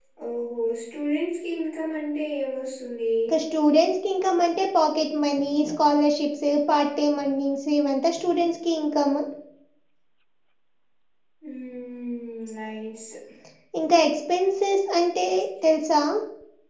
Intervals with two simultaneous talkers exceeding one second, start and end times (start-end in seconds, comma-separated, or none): none